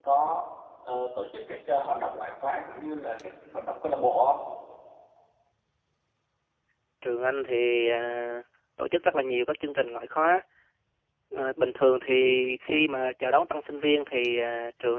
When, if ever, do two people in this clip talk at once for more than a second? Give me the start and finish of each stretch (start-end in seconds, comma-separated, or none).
none